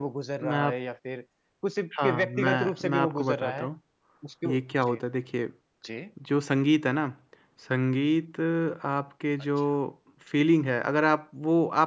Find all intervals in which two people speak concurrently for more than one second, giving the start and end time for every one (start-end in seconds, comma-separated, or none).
2.0-3.7